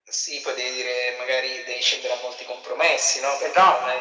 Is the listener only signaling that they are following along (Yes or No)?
Yes